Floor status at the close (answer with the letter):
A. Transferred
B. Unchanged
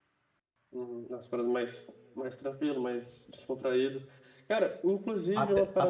B